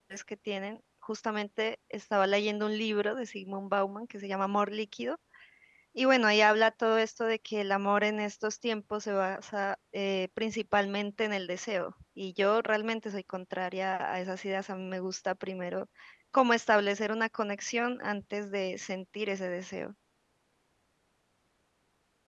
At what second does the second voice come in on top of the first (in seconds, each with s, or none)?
none